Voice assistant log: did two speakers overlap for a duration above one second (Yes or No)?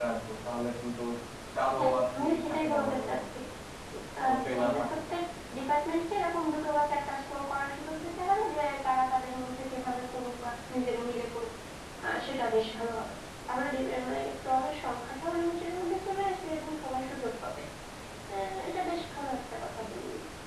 Yes